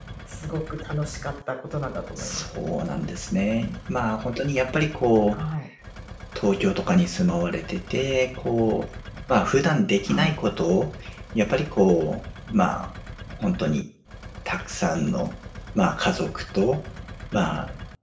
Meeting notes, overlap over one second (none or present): none